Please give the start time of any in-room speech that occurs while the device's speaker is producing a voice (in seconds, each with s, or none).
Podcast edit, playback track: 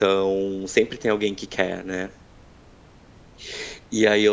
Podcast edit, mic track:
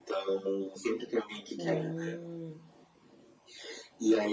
1.6 s